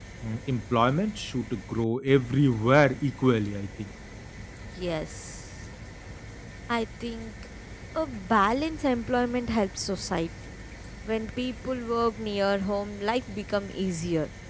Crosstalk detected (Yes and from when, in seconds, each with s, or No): No